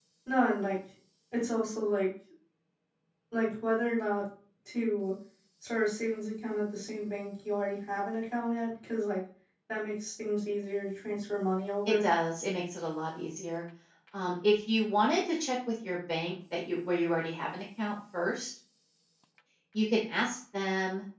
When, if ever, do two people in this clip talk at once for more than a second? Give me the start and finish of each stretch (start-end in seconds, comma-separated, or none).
none